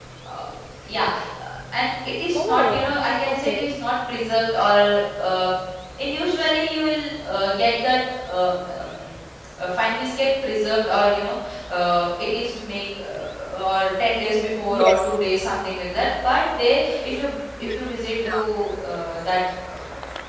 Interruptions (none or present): present